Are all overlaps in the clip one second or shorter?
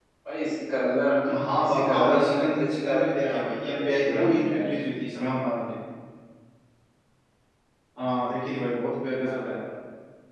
No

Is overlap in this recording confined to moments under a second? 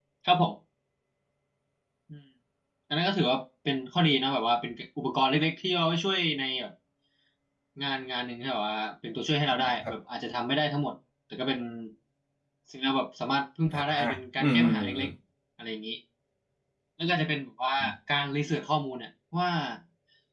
No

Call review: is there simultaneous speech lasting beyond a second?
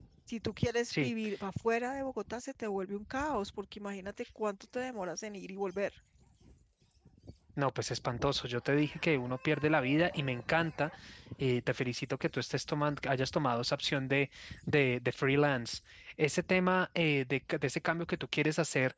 No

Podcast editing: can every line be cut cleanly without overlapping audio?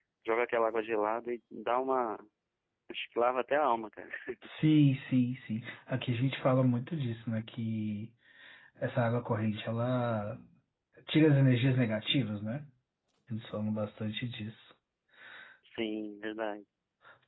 Yes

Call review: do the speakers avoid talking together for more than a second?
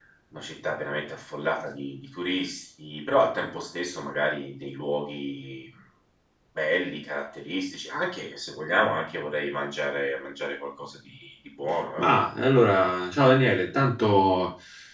Yes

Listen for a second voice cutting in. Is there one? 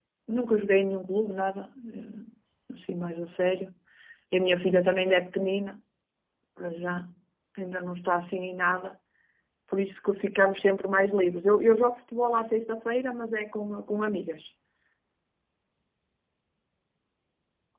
No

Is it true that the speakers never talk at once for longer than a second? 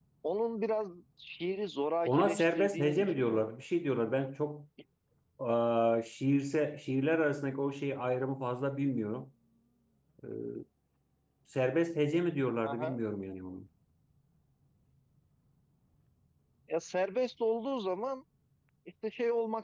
No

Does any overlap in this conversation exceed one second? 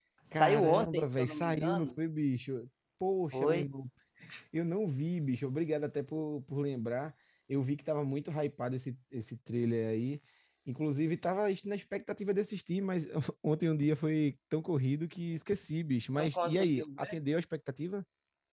Yes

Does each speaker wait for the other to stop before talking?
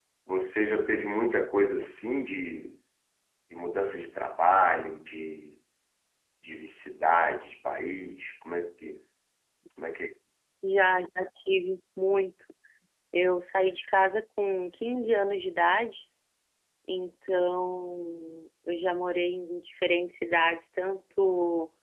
Yes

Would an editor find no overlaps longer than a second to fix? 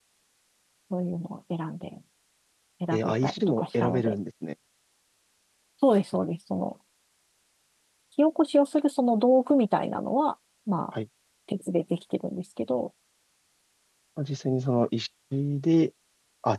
No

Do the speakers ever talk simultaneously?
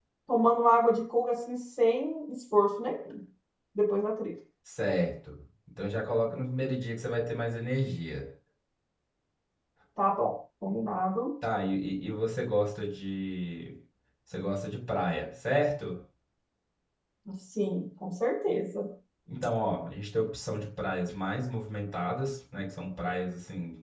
No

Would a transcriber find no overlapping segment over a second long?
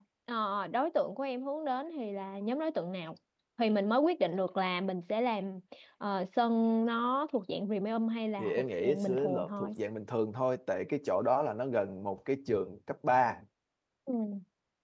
No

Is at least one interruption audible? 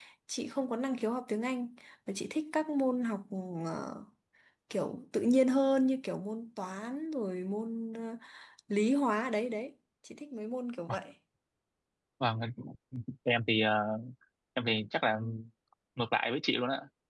No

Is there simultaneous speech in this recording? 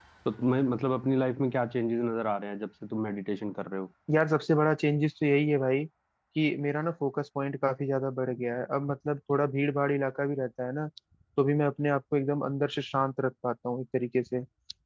No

